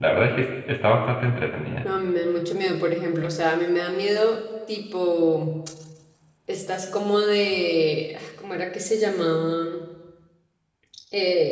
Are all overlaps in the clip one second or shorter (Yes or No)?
Yes